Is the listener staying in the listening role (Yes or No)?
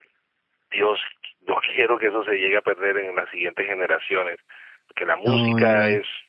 Yes